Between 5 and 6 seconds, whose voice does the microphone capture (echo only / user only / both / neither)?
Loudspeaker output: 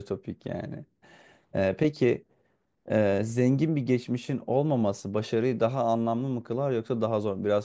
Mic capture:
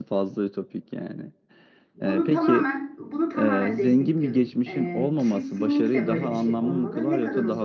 both